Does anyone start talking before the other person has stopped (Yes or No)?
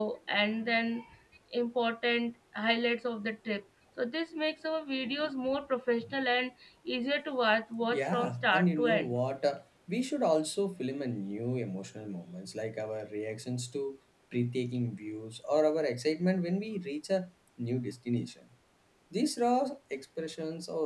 Yes